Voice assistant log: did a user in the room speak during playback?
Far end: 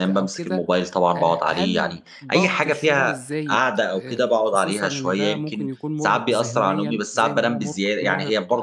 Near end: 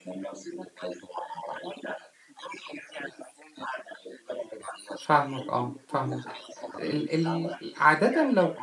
Yes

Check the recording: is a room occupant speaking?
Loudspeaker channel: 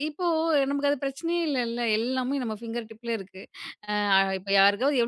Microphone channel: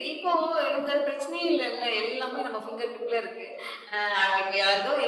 No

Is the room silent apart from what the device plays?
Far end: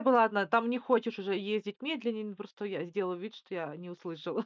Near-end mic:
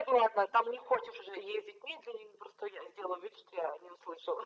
Yes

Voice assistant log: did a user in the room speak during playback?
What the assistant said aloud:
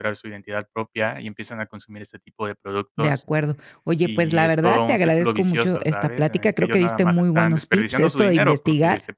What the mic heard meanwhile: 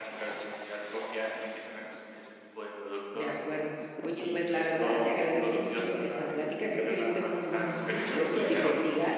No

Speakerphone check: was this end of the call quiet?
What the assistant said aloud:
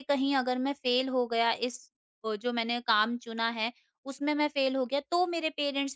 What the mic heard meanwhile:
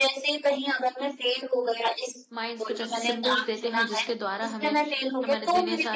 No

